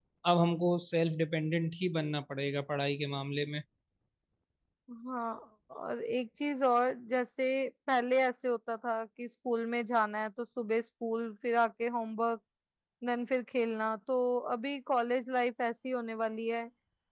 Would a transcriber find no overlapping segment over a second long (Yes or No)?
Yes